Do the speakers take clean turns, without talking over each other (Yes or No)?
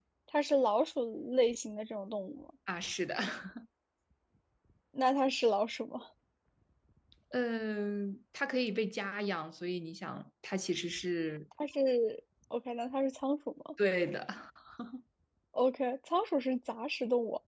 Yes